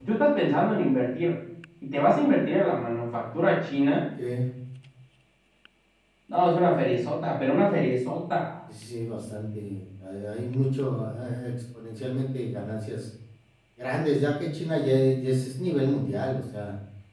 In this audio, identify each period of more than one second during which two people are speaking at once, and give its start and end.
none

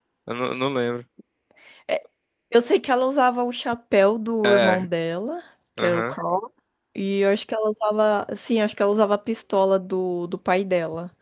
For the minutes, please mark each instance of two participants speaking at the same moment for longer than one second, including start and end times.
none

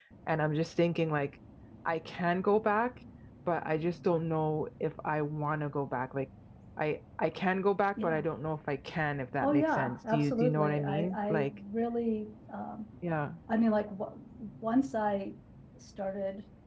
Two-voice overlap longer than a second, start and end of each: 9.4-11.6

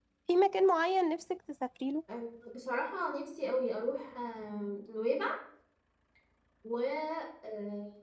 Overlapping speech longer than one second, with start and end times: none

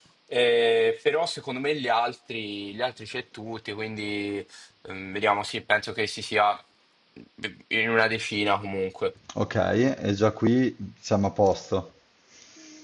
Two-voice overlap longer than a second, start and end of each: none

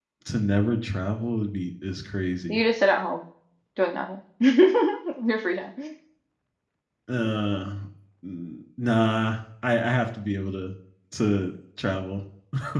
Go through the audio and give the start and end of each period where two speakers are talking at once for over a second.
none

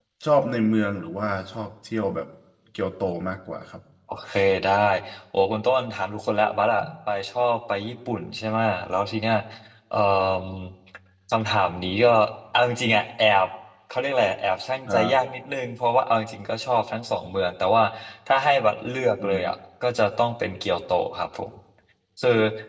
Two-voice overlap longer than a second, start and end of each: none

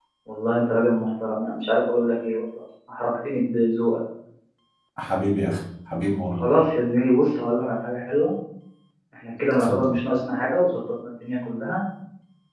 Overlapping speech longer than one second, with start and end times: none

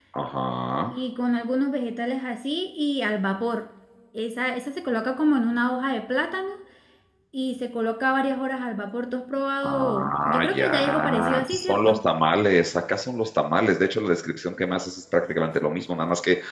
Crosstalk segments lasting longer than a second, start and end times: 9.6-12.0

